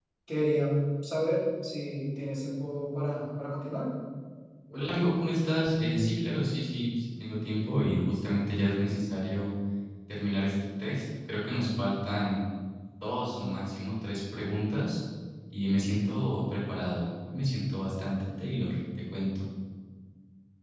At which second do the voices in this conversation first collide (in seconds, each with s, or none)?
none